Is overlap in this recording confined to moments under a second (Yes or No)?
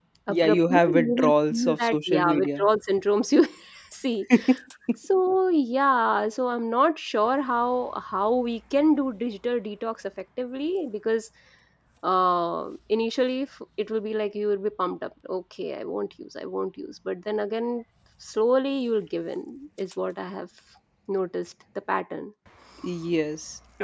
No